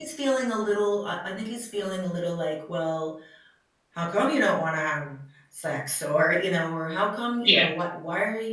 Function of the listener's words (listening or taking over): listening